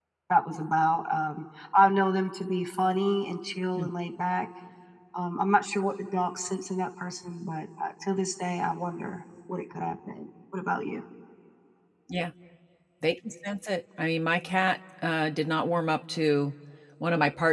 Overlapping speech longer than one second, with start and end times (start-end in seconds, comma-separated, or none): none